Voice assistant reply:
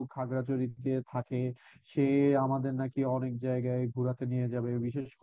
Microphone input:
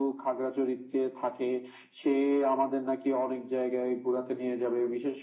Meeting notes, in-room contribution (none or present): none